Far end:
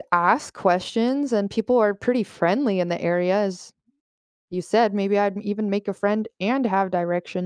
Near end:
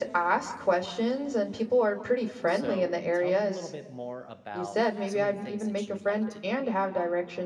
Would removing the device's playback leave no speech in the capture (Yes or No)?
No